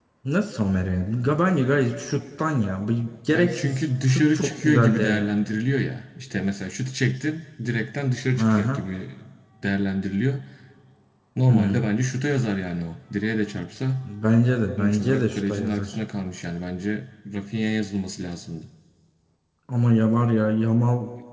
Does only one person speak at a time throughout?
No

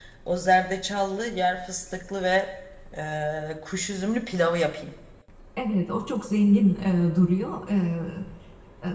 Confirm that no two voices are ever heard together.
Yes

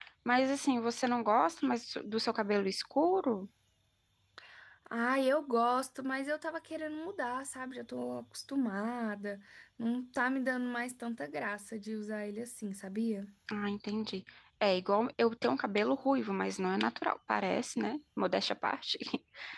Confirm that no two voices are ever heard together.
Yes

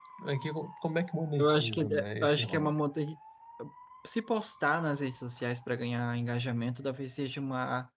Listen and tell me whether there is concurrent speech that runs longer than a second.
Yes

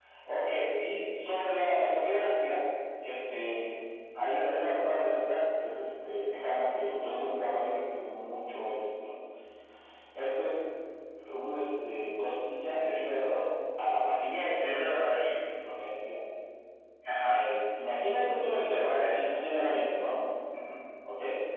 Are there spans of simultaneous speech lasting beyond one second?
No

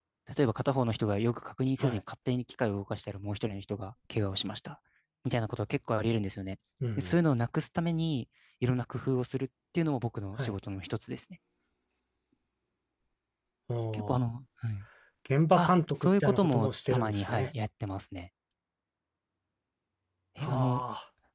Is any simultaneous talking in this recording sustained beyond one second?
Yes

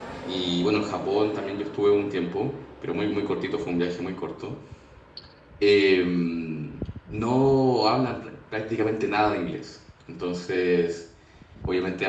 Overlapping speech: No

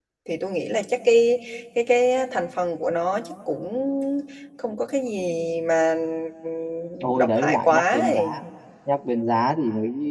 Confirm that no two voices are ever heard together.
No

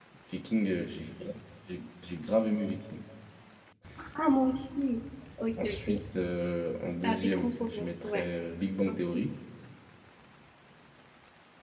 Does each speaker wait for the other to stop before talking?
No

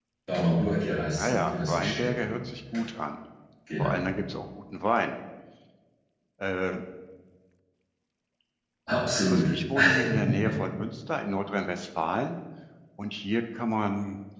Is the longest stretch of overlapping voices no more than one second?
No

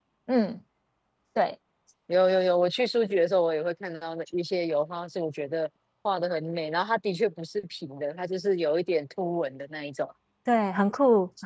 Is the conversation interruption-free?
Yes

